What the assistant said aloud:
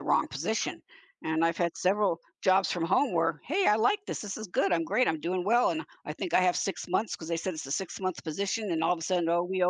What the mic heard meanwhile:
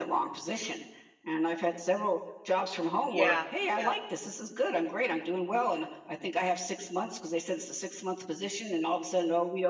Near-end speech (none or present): present